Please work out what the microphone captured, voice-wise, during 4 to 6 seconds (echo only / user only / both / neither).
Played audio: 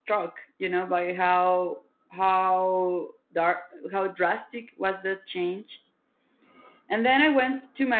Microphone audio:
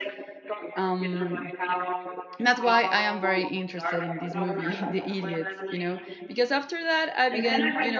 both